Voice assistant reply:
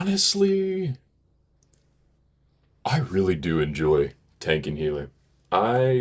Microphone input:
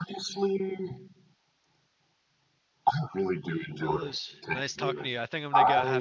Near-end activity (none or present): present